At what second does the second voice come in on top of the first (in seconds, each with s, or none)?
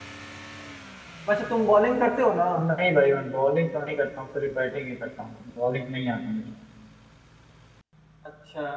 none